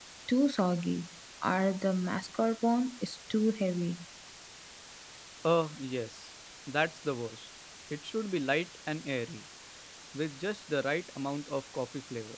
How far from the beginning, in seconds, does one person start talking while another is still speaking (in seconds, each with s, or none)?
none